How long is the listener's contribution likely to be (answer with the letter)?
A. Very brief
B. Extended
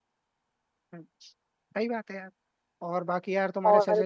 A